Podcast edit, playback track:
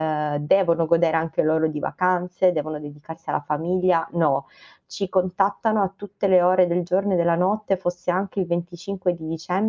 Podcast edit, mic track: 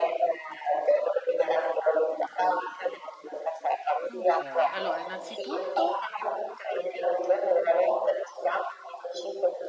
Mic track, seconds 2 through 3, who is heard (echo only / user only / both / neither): echo only